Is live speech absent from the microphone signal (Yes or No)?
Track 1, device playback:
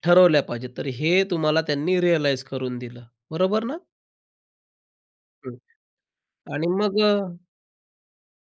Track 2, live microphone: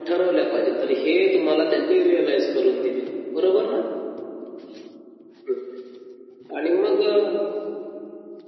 Yes